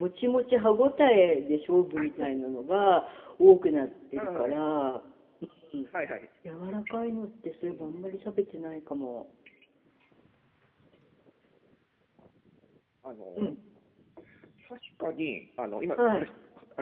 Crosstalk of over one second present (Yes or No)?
No